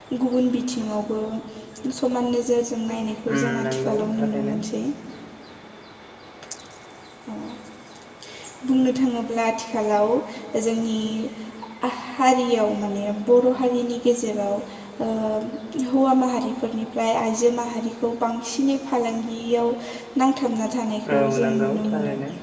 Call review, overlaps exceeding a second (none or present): present